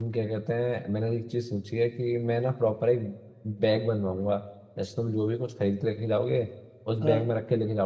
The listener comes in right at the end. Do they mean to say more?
No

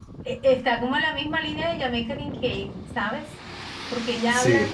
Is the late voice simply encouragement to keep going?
Yes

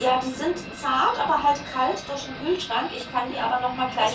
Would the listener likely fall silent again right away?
Yes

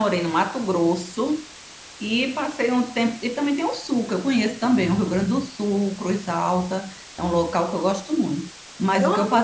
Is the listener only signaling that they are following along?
Yes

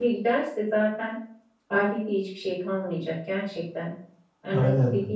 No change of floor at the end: Yes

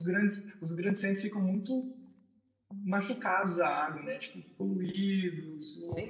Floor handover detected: No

